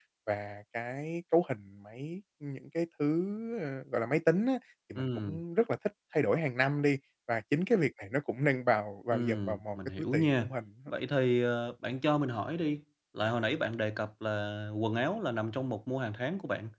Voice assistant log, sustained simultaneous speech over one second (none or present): present